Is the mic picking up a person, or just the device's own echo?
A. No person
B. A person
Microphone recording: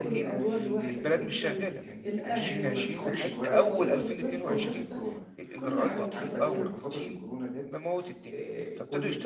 B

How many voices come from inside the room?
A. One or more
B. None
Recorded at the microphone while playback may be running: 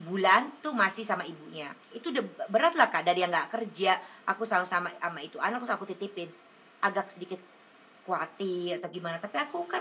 B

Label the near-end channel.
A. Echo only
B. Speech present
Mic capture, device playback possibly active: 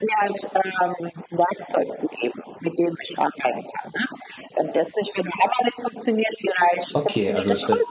B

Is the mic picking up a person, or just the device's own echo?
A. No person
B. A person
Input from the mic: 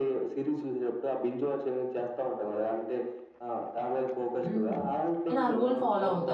B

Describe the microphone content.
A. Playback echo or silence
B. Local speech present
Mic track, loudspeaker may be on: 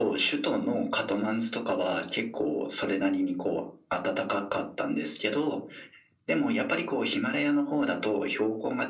A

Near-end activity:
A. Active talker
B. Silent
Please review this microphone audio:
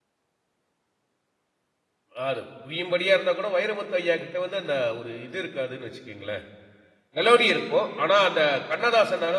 A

